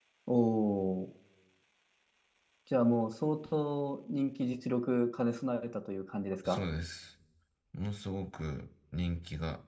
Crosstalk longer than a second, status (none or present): none